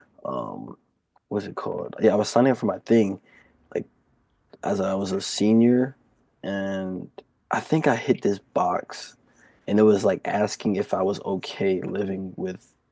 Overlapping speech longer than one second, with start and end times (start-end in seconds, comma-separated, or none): none